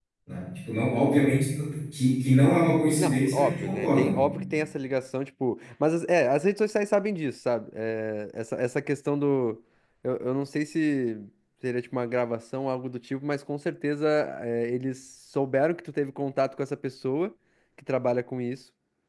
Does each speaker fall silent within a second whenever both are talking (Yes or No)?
No